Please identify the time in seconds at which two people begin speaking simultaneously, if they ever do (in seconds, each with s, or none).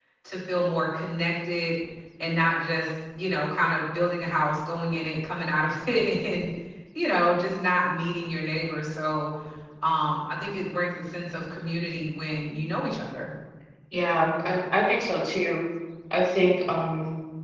none